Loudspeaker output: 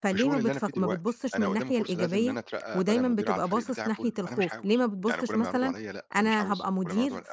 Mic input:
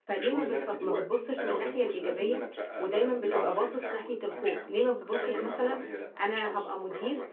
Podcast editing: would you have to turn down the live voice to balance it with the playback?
No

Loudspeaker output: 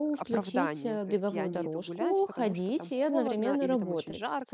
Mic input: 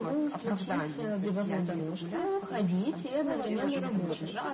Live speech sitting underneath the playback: Yes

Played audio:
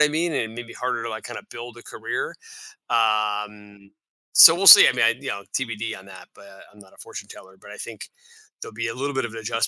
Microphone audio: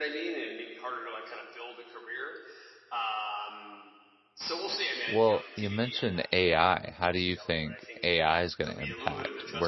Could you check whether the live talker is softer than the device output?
No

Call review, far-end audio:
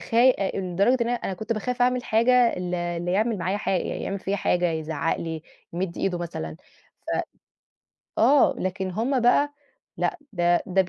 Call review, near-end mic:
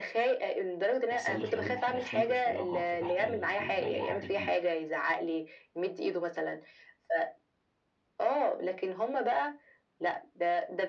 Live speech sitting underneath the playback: Yes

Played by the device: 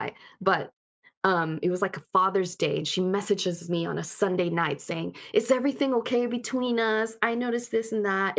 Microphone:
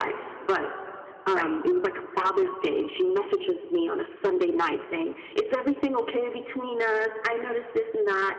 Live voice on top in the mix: No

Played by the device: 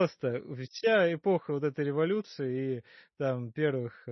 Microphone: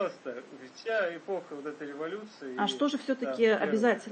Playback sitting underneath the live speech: Yes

